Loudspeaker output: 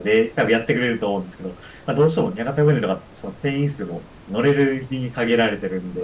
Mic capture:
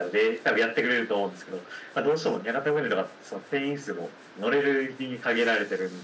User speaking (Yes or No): No